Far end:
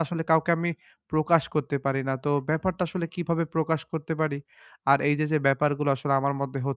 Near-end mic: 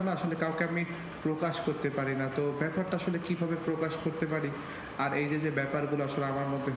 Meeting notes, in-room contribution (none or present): none